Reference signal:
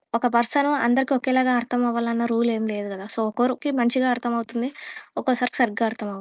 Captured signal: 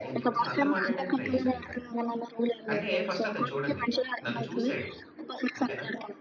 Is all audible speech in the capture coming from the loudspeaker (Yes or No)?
No